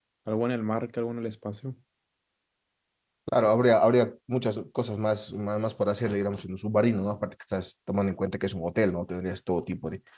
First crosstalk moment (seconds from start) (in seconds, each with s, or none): none